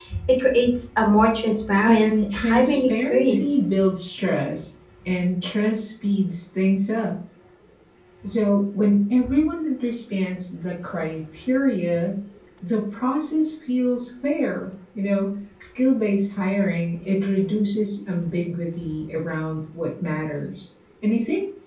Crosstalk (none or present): present